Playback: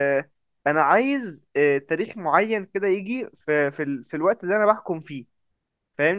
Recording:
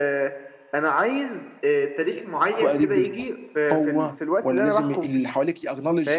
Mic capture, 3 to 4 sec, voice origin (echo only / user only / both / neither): both